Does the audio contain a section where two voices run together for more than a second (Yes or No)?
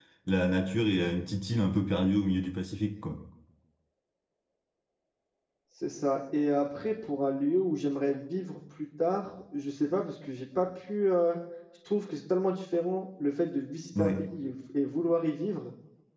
No